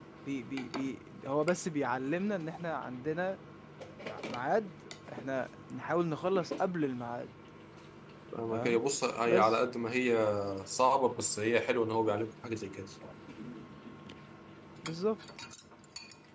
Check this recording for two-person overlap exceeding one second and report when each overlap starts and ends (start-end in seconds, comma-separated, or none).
none